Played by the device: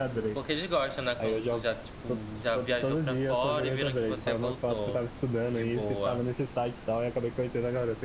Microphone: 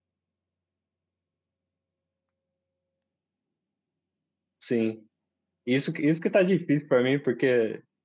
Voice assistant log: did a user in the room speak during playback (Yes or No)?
Yes